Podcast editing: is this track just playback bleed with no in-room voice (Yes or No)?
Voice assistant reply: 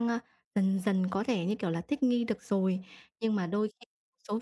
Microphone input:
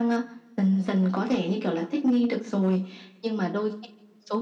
Yes